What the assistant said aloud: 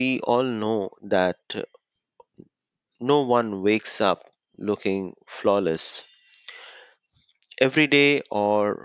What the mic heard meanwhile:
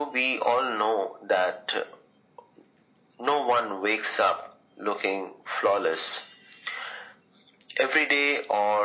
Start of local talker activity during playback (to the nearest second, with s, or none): none